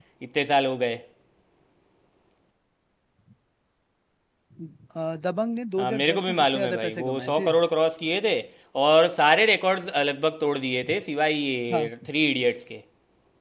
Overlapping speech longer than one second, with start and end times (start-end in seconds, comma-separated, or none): 5.8-7.5